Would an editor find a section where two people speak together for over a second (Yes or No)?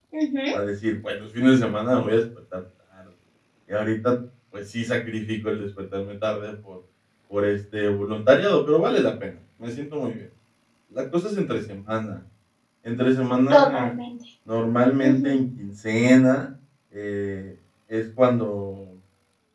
No